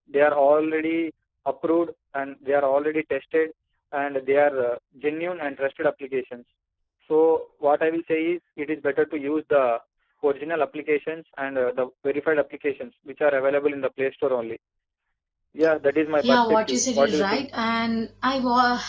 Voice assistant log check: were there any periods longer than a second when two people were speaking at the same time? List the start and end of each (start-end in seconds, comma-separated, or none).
16.2-17.5